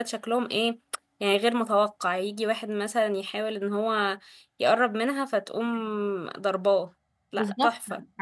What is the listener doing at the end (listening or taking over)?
taking over